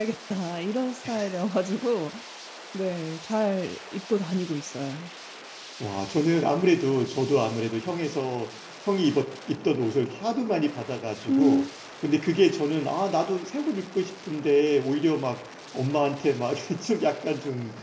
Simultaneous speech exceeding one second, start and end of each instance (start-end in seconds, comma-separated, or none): none